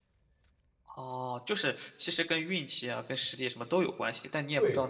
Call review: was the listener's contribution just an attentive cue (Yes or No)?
No